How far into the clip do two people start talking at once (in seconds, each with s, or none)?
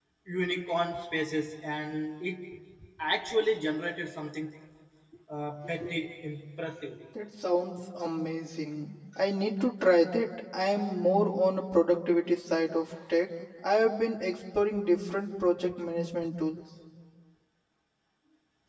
none